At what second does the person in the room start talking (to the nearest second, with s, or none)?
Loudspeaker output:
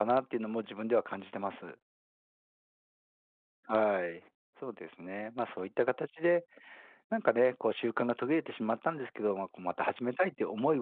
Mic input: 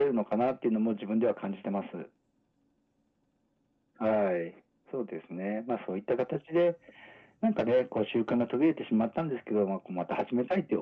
none